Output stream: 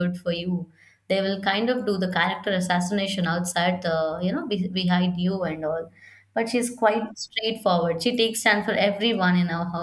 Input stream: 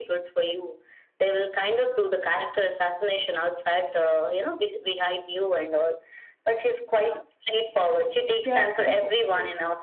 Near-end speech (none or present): present